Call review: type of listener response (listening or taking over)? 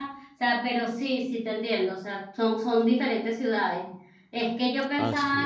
listening